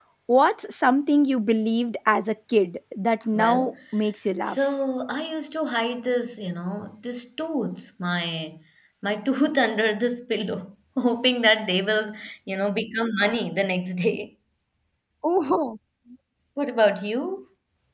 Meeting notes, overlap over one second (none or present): none